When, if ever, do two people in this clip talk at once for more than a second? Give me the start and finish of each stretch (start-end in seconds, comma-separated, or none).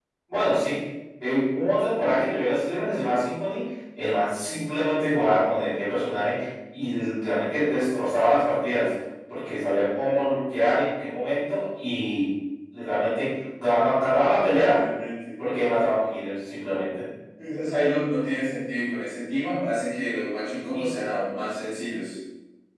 none